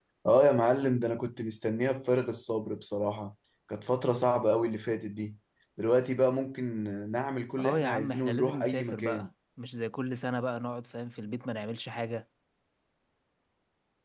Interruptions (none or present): present